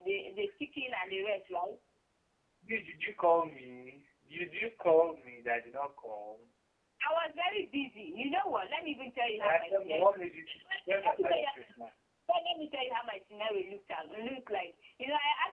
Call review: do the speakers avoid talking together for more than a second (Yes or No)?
No